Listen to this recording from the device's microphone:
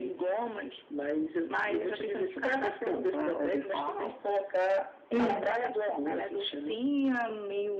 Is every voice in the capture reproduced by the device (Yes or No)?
No